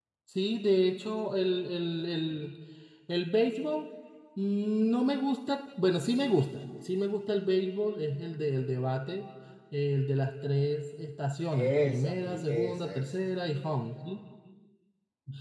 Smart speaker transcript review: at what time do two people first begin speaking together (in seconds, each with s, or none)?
11.5 s